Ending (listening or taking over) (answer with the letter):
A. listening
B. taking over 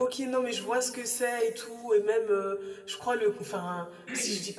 A